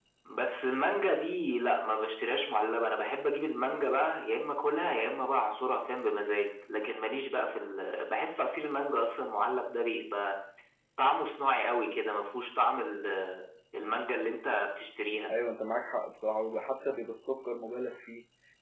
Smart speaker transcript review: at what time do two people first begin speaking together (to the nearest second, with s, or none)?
none